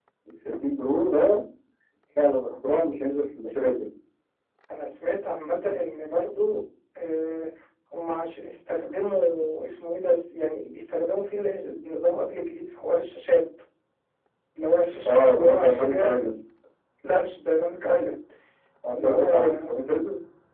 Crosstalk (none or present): present